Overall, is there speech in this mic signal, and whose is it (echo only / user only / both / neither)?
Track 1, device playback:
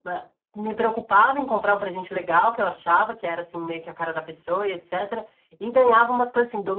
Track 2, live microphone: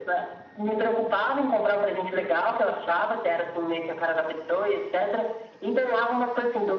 echo only